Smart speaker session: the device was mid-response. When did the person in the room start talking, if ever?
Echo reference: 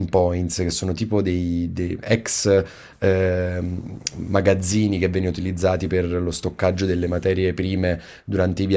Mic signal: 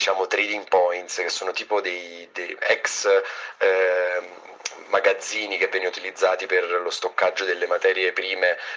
none

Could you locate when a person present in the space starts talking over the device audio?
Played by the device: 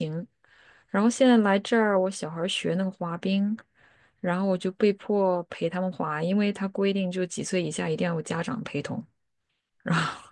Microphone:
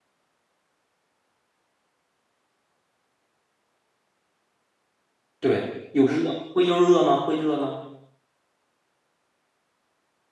5.4 s

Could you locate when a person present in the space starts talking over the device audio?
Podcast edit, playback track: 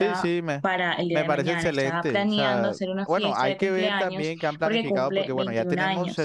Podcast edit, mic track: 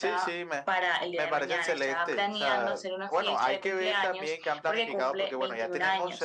none

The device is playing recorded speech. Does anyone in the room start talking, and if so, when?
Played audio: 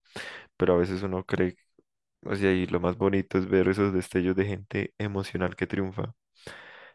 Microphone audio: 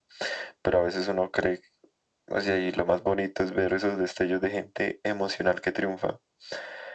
none

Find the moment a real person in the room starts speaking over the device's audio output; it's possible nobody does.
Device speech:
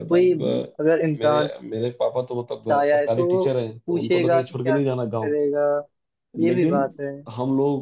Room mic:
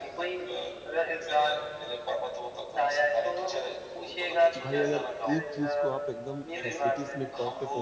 4.6 s

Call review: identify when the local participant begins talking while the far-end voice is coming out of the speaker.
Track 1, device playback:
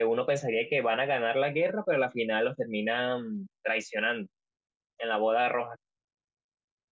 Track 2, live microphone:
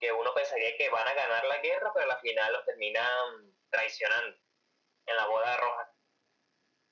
none

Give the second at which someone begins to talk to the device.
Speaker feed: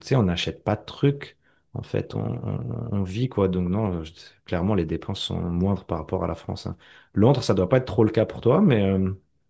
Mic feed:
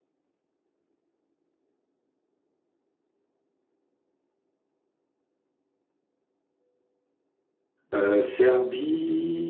7.9 s

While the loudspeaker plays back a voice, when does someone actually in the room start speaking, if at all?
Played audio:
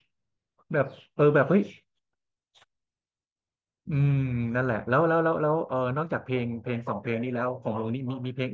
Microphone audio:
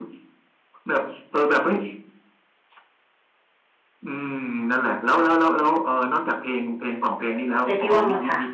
7.6 s

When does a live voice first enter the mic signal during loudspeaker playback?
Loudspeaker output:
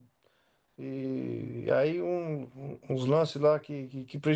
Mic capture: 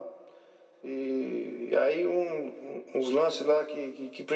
none

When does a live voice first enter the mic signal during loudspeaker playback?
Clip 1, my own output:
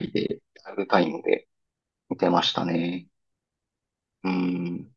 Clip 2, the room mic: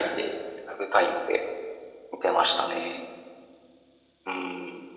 none

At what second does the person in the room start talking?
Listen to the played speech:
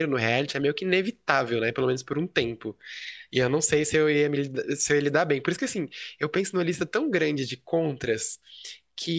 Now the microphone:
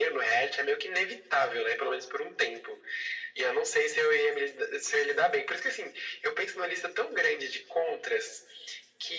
none

